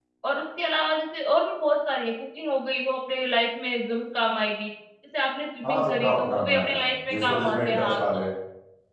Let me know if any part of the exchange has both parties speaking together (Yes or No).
Yes